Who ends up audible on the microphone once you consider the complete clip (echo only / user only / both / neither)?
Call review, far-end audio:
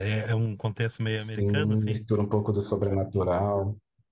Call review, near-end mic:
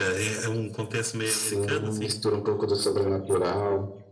echo only